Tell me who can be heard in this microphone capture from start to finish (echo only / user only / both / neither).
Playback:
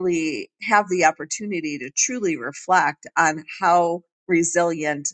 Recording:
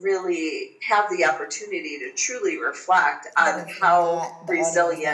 both